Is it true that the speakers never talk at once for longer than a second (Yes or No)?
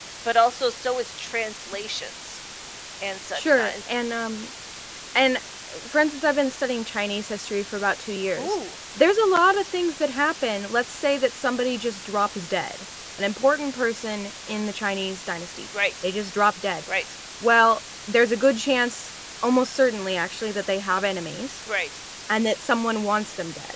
Yes